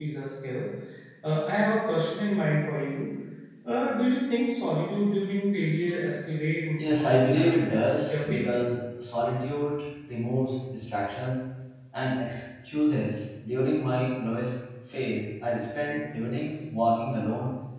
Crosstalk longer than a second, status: present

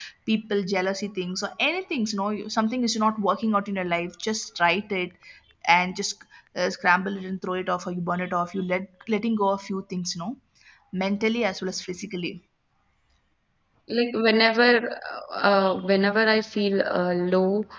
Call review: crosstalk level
none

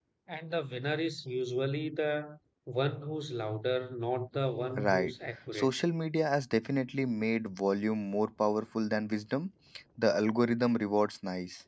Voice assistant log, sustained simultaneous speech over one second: none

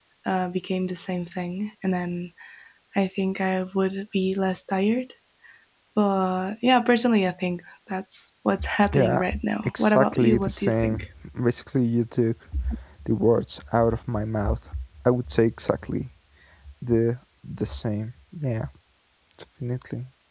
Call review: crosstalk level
present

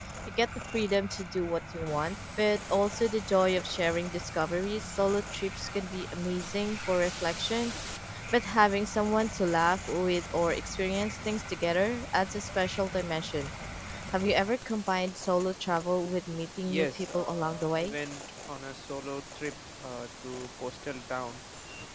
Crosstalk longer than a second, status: present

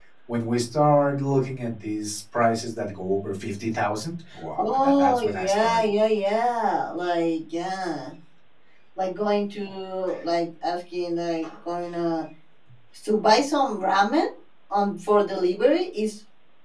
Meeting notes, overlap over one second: present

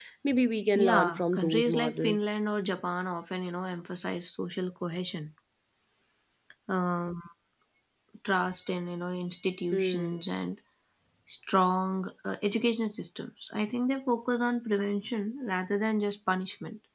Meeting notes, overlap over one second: present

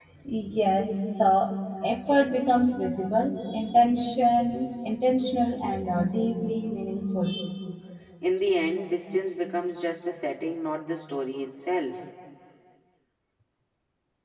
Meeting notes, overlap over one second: none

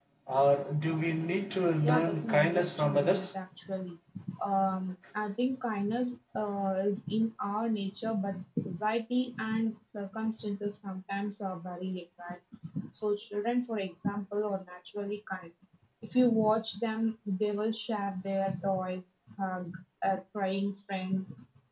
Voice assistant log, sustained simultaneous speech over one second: present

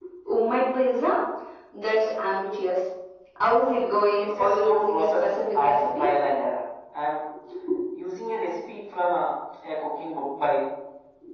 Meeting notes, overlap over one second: present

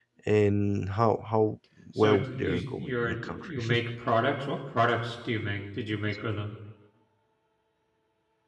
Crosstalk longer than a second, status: present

